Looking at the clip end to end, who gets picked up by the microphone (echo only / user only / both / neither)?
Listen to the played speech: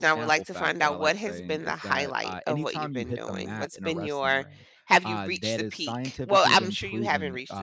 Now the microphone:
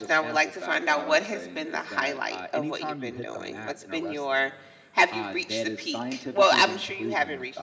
echo only